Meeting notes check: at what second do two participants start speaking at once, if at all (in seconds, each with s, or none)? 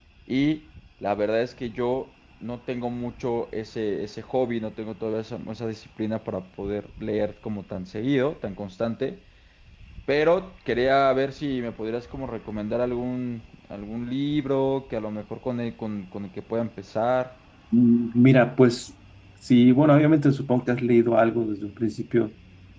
none